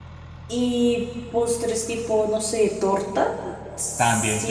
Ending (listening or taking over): taking over